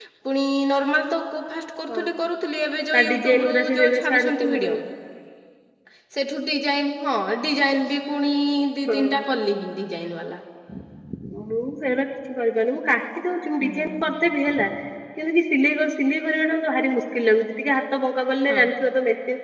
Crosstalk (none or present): present